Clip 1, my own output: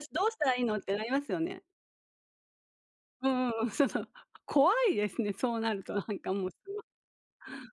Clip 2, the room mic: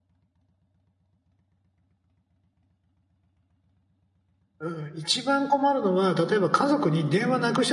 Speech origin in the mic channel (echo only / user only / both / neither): user only